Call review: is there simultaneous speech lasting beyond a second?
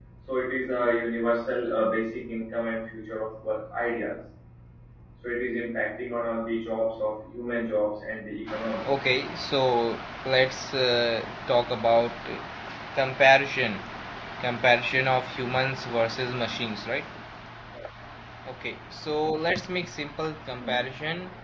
No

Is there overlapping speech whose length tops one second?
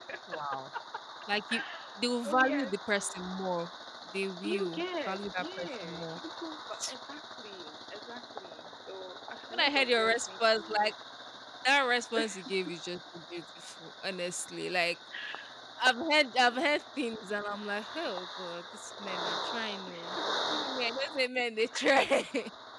Yes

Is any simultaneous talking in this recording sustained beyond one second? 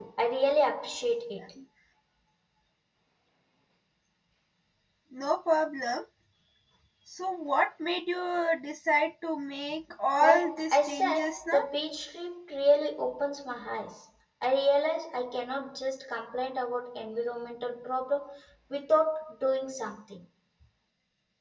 Yes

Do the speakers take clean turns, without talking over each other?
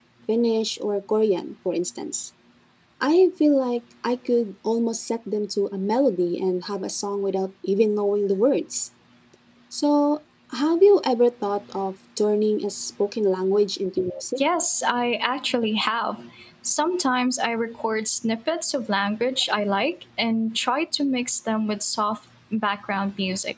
Yes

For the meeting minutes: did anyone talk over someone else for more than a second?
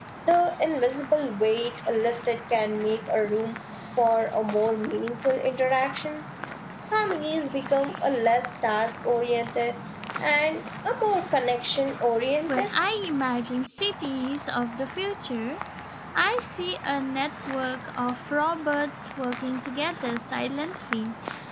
No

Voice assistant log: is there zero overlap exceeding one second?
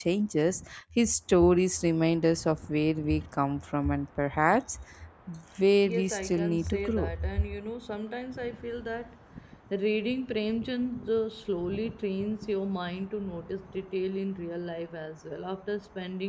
No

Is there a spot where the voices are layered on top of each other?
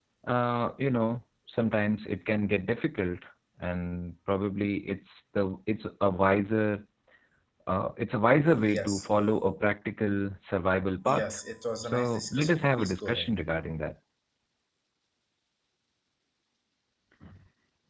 Yes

